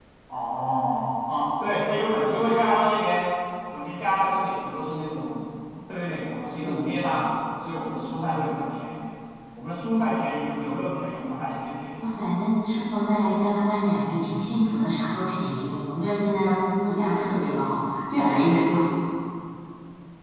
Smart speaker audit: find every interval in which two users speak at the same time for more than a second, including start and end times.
none

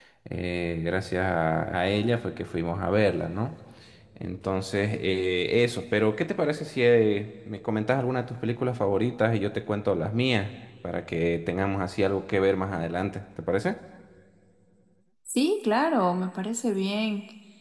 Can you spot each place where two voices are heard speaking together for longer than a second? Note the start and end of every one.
none

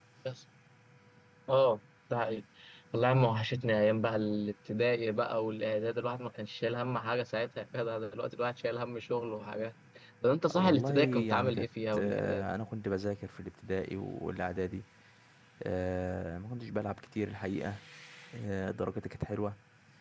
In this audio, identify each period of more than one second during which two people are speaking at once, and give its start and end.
10.5-12.5

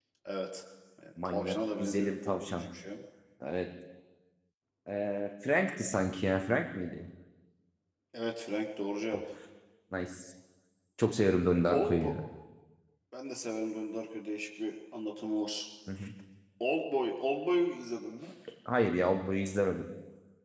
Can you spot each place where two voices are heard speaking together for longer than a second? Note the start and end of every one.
1.2-2.7

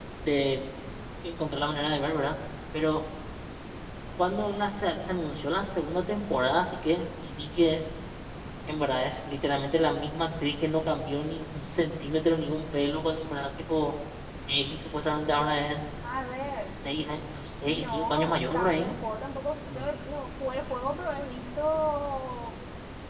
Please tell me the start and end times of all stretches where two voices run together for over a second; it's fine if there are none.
17.7-18.9

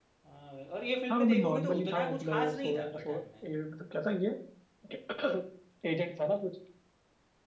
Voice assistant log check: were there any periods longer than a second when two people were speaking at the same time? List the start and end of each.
1.1-3.2

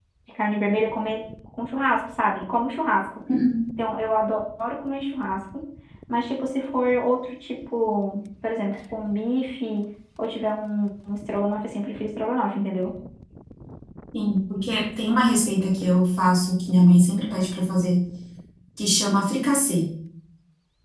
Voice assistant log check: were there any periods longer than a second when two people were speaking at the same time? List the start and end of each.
none

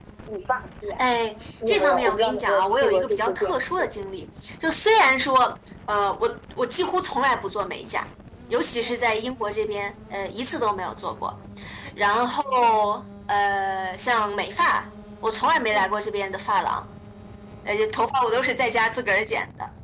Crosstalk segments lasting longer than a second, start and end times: 1.7-3.9

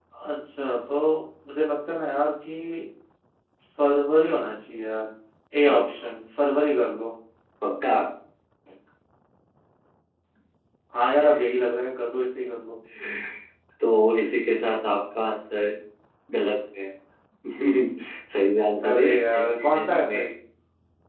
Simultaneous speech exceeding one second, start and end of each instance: 18.9-20.2

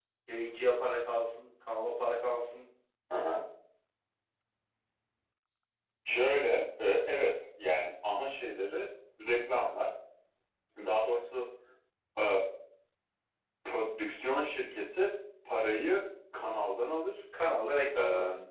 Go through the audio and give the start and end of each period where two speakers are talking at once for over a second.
none

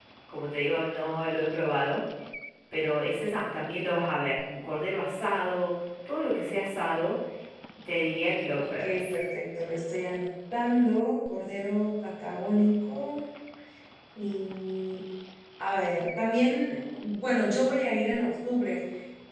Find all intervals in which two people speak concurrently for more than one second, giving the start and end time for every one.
none

